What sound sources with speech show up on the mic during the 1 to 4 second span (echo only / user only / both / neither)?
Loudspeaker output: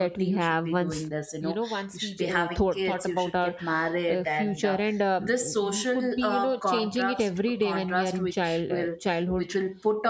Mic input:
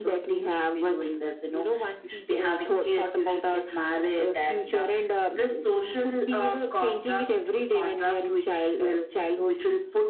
echo only